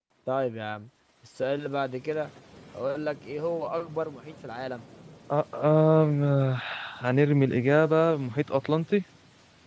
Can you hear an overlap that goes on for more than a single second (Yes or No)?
No